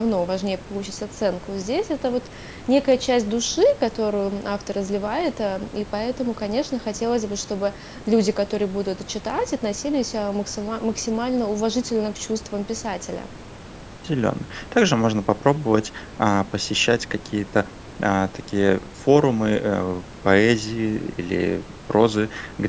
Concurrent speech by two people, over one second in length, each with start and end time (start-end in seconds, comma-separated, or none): none